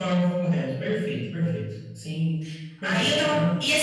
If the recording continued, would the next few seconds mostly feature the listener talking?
Yes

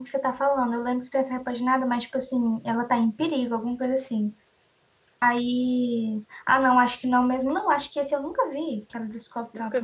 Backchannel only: No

